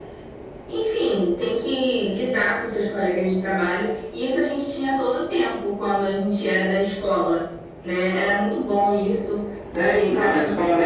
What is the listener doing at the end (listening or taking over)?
taking over